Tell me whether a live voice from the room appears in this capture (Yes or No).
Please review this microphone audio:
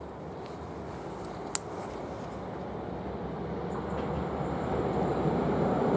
No